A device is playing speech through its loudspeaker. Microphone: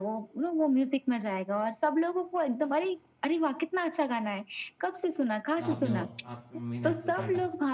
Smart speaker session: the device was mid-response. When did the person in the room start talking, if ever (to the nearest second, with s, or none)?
6 s